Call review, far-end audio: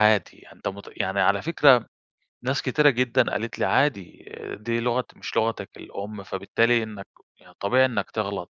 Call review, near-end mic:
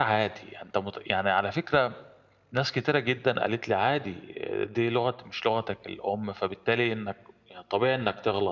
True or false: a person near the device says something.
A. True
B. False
B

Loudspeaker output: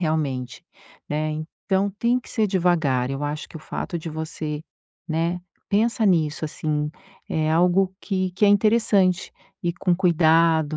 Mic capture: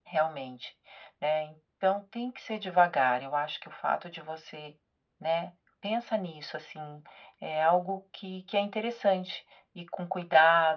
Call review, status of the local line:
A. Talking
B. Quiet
B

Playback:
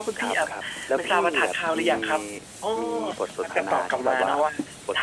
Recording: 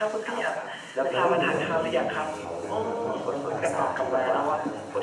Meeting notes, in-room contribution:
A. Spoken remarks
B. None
A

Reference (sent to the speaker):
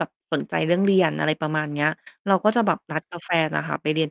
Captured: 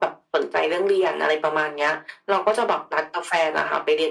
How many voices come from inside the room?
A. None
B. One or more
A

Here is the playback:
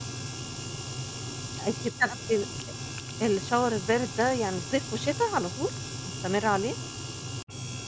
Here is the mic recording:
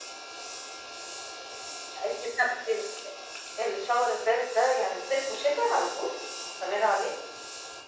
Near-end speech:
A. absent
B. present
A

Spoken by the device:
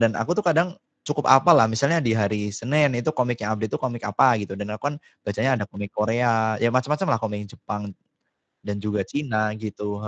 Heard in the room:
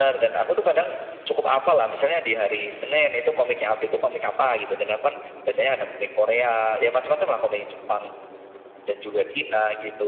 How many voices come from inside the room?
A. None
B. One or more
A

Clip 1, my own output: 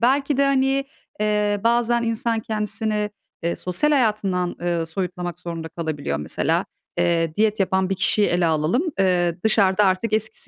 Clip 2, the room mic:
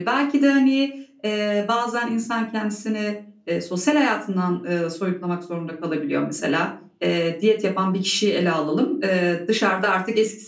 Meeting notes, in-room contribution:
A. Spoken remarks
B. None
B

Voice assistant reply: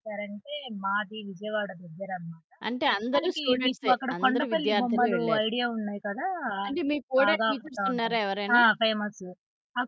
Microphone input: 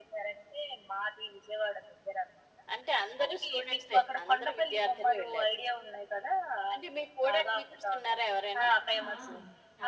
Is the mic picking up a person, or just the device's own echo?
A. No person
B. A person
B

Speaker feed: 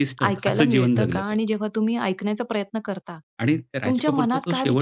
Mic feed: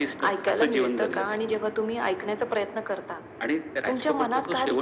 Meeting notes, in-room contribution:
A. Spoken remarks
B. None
B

